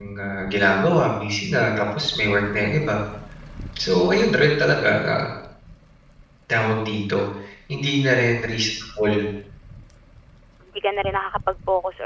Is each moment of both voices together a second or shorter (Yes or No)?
Yes